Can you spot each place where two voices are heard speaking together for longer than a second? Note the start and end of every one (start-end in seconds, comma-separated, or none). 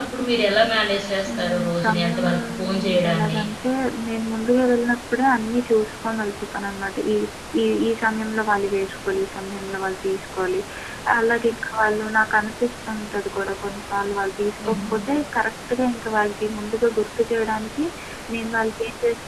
1.3-3.4